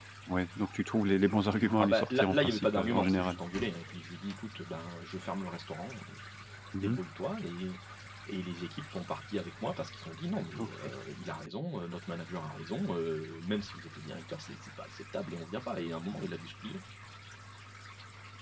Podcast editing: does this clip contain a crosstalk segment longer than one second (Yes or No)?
Yes